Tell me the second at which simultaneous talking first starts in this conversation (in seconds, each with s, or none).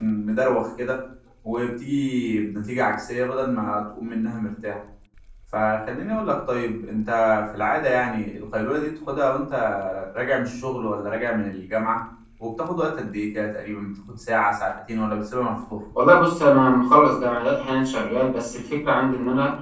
none